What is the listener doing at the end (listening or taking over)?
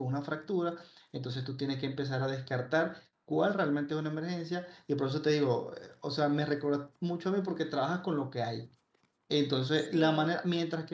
listening